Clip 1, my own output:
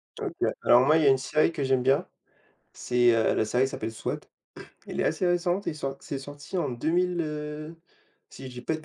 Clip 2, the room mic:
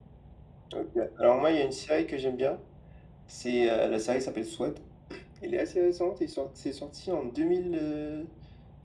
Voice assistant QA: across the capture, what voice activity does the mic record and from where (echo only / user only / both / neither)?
echo only